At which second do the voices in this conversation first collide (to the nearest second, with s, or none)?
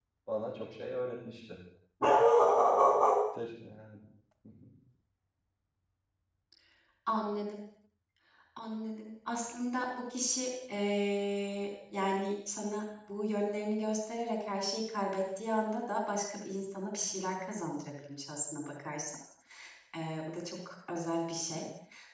none